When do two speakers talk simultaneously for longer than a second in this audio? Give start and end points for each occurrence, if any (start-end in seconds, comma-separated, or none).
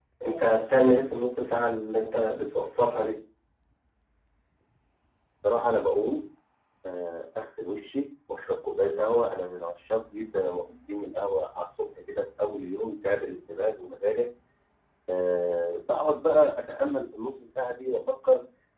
none